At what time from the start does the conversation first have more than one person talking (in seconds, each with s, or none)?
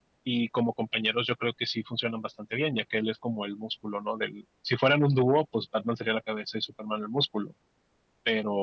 none